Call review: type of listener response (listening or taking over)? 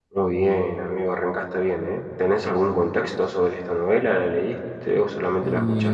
taking over